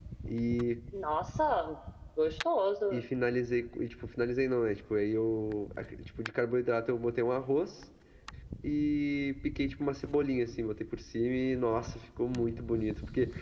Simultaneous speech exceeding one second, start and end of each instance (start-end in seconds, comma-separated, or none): none